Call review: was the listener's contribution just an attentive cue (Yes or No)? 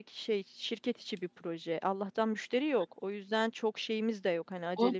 No